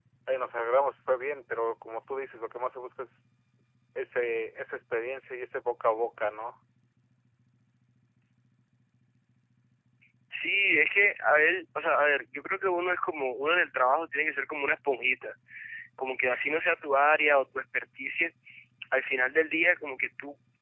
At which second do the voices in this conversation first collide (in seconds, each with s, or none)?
none